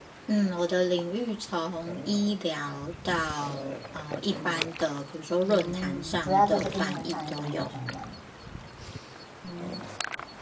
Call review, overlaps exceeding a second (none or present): present